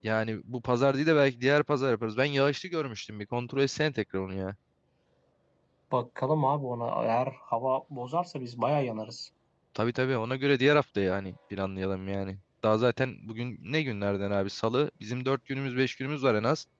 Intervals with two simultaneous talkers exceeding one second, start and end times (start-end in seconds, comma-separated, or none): none